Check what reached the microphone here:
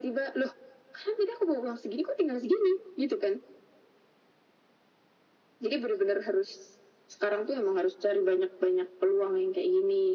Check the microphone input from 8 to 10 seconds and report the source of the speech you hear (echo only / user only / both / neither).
echo only